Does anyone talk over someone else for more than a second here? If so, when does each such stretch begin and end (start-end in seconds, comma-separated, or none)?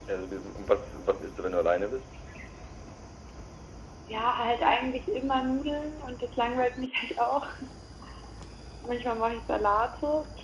none